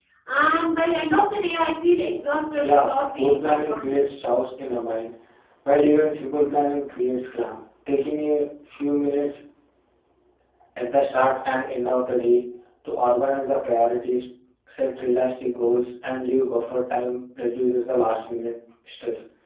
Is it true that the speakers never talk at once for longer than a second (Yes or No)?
No